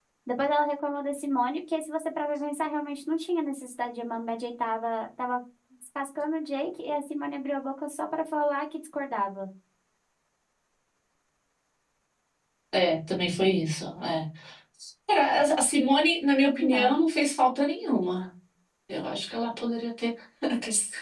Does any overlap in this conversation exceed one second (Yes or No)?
No